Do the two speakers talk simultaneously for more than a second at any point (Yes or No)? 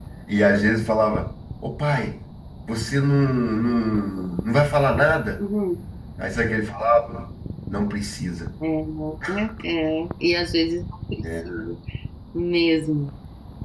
No